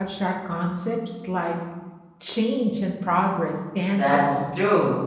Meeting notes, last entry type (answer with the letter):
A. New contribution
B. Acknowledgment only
A